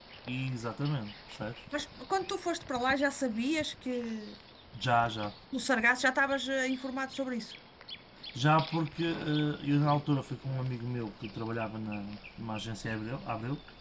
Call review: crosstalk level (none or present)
none